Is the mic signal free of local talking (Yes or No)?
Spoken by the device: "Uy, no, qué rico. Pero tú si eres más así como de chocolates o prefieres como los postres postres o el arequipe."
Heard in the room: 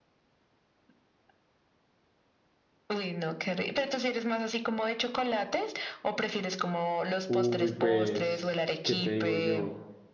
No